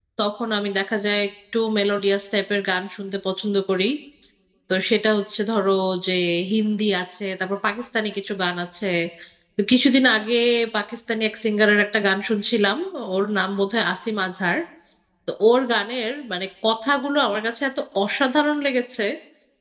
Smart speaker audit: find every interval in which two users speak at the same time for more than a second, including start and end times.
none

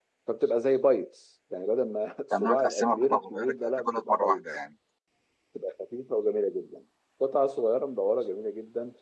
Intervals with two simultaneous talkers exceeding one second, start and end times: 2.4-4.4

